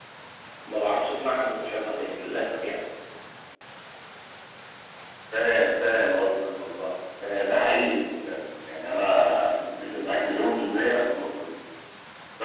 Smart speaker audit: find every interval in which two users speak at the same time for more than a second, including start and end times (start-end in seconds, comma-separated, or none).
none